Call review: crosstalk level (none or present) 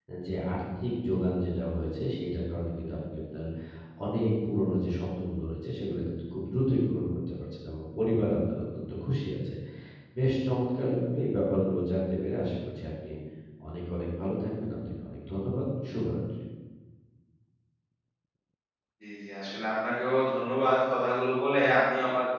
none